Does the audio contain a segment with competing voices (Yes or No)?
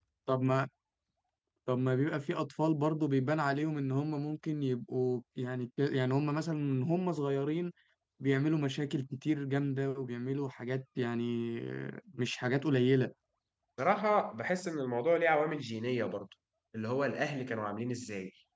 No